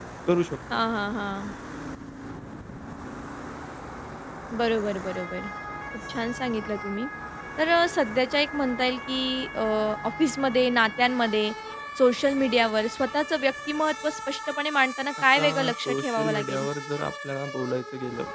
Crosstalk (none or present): present